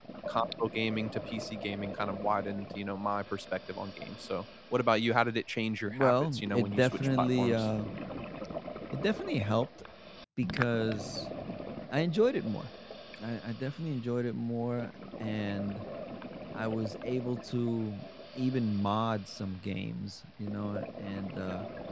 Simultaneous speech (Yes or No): Yes